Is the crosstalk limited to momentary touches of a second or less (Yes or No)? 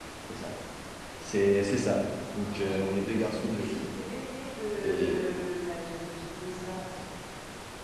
No